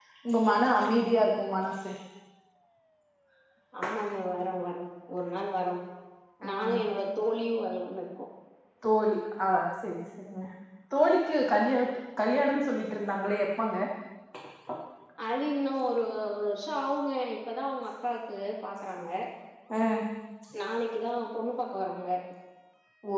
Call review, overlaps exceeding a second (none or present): none